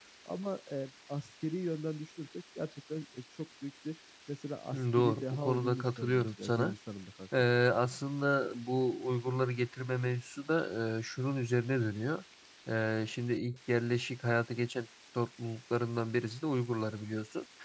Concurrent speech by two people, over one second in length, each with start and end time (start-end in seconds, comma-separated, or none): 4.7-6.7